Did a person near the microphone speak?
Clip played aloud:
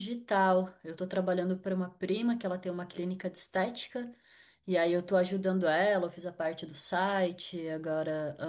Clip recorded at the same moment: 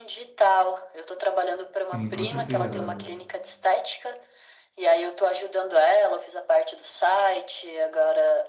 Yes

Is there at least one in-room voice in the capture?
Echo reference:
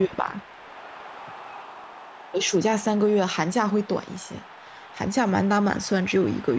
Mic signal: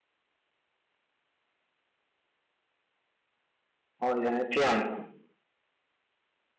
Yes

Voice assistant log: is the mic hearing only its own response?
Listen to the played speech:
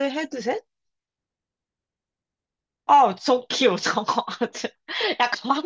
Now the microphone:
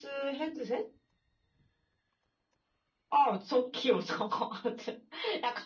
Yes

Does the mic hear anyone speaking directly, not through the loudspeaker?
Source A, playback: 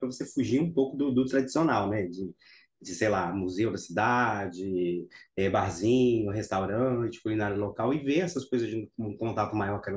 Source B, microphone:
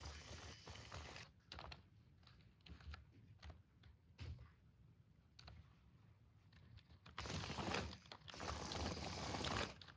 No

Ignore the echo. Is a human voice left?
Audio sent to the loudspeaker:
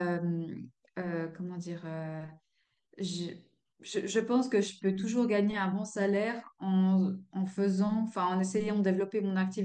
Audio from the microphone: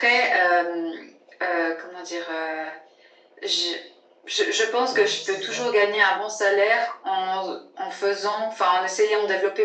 Yes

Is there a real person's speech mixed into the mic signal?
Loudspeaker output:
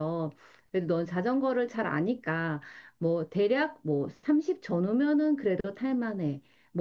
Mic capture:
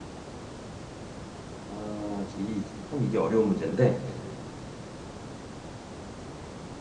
Yes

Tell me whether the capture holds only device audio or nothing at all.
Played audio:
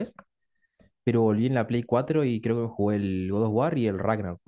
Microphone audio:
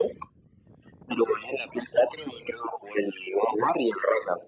Yes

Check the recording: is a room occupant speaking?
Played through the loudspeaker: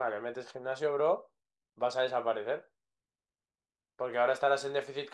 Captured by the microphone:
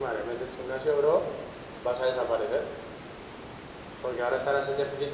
No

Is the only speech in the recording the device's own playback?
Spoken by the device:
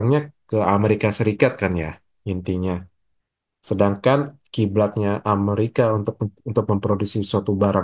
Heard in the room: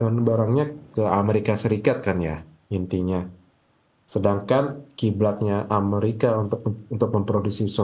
Yes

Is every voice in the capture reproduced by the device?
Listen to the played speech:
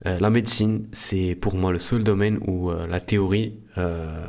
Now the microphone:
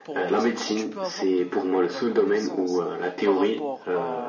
No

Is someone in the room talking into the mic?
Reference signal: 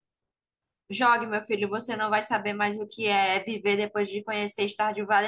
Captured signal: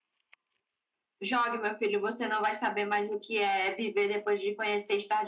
No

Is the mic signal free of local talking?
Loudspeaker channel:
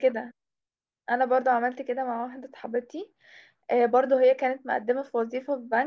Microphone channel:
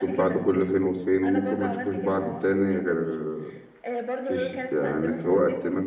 No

